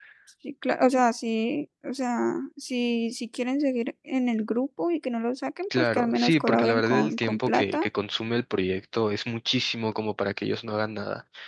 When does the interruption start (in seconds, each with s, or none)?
5.7 s